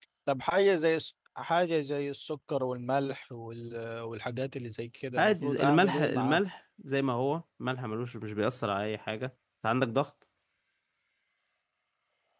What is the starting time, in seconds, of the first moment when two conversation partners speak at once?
5.2 s

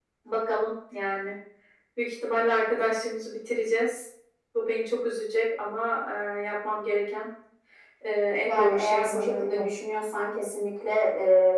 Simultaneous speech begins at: 8.4 s

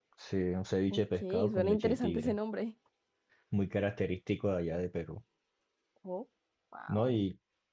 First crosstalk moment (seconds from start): 0.9 s

